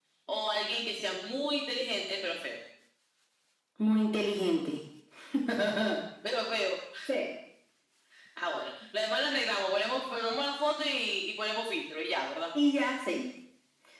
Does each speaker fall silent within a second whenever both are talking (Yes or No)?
Yes